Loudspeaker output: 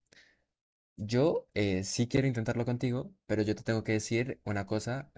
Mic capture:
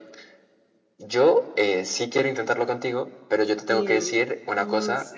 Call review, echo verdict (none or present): present